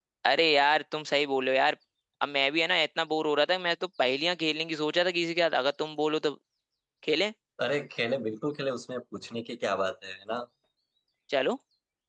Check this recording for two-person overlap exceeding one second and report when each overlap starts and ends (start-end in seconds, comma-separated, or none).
none